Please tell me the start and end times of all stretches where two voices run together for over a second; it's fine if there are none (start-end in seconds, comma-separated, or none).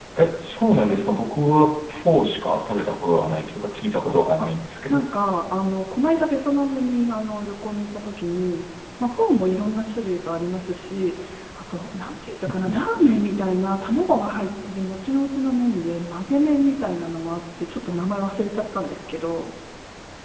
none